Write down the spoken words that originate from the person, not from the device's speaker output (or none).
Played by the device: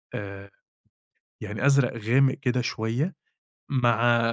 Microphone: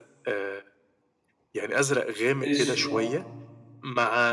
أسوِد آه.